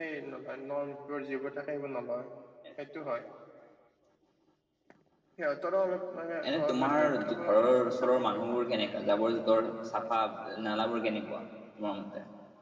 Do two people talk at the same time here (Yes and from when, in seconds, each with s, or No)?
Yes, from 6.4 s